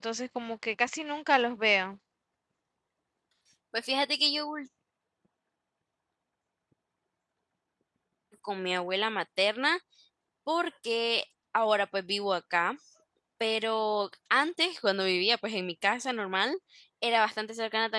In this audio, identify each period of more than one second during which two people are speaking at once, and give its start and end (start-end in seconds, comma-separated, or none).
none